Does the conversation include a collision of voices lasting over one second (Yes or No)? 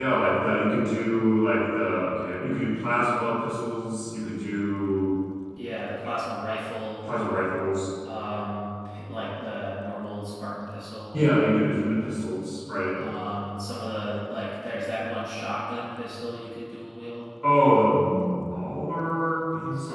No